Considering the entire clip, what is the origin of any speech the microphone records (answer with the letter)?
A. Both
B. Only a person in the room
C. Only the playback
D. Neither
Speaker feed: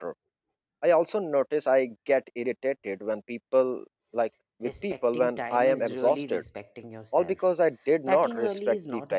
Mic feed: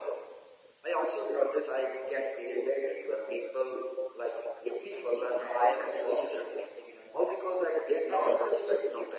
C